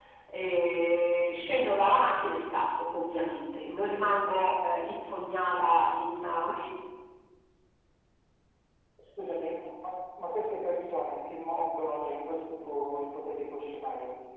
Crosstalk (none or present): none